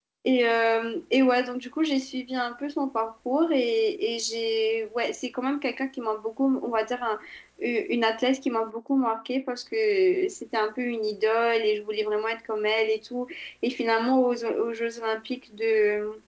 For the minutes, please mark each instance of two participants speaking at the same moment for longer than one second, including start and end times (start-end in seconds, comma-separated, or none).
none